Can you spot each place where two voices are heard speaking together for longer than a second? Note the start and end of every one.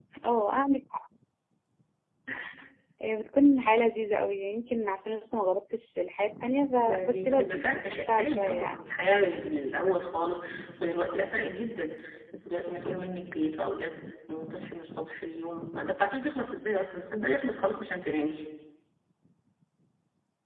6.8-8.8

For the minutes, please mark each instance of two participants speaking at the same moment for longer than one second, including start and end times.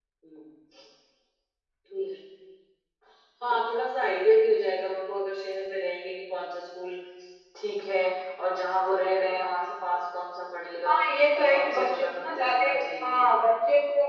11.4-12.7

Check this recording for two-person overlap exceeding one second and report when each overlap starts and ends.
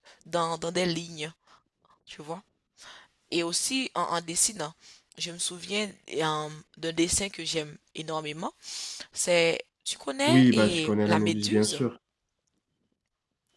10.3-11.8

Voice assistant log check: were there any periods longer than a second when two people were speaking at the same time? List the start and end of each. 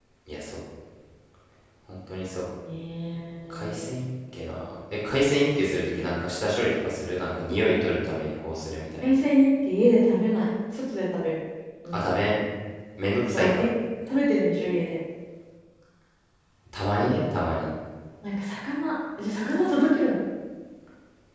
none

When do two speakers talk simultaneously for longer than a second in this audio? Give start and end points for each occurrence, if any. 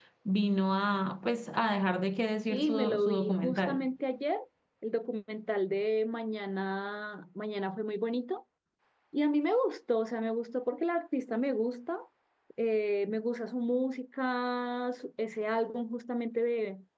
2.5-3.9

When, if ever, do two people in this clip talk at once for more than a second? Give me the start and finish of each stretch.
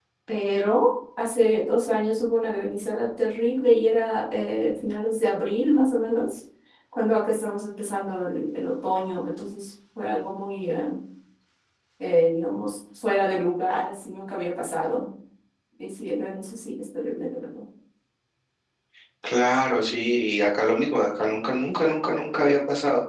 none

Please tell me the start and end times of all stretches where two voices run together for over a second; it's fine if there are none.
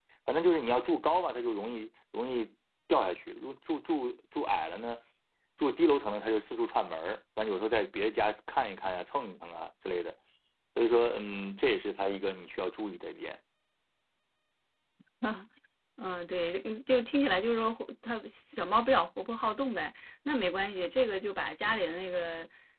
none

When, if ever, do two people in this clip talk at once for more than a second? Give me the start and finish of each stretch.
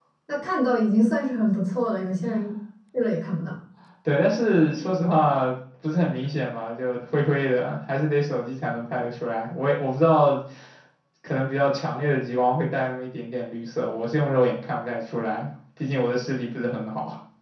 none

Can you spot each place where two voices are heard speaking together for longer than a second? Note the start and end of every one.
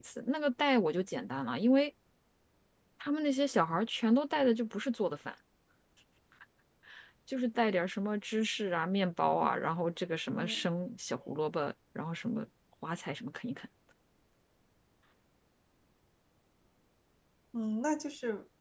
none

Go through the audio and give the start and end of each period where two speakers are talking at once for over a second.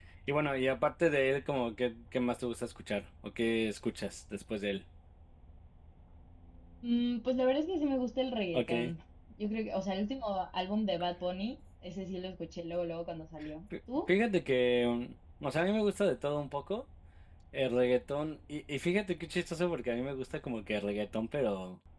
none

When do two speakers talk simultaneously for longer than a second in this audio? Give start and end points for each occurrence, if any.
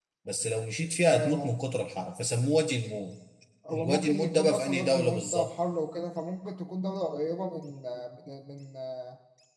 3.7-5.5

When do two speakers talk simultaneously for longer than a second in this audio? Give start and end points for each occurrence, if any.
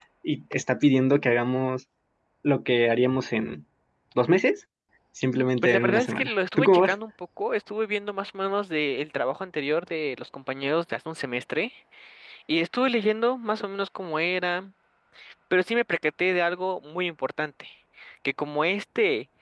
5.6-7.0

